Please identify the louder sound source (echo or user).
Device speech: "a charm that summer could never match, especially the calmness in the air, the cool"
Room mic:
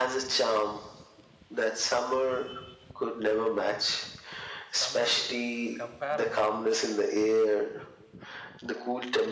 echo